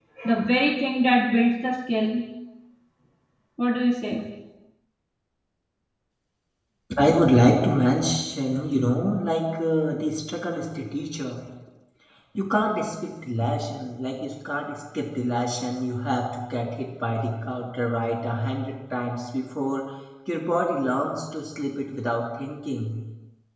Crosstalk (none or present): none